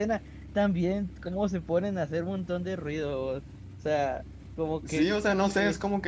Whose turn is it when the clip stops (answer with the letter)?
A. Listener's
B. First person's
A